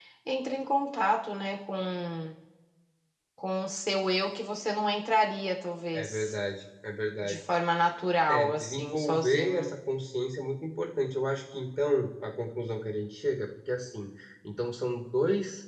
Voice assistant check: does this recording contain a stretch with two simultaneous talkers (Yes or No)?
Yes